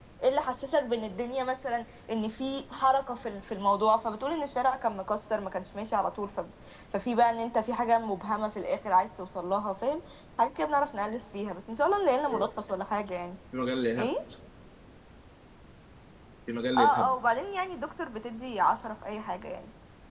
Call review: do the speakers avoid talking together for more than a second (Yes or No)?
Yes